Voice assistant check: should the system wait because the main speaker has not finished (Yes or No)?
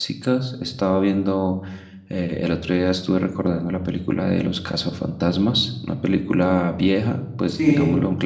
No